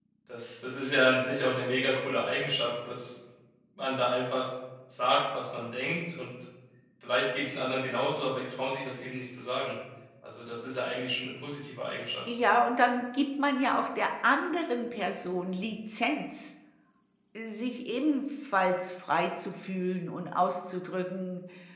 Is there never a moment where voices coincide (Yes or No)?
Yes